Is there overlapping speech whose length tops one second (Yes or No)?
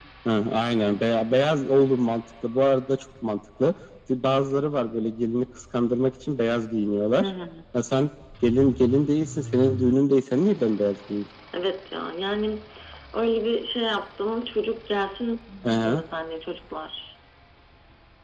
No